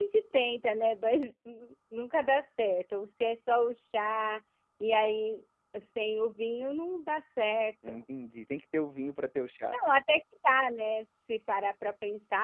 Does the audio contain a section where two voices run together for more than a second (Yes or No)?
No